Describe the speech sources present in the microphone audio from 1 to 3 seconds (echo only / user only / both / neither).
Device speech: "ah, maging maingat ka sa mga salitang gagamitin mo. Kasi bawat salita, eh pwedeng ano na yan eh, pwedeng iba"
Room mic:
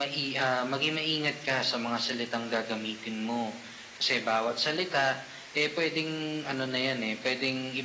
echo only